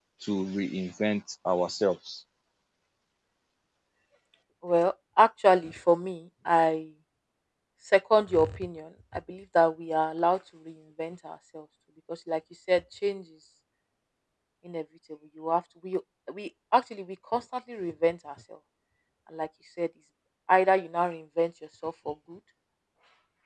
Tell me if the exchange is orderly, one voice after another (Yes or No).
Yes